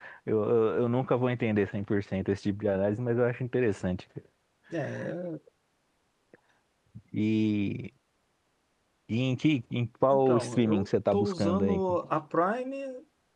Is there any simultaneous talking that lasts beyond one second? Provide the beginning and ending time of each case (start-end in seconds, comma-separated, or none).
10.1-11.8